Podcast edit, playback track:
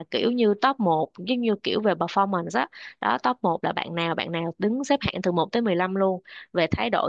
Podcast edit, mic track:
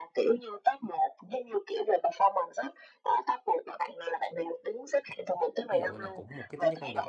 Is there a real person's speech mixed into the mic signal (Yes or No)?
Yes